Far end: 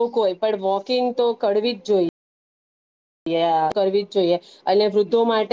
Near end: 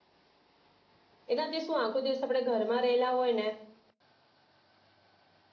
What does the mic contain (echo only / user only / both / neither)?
user only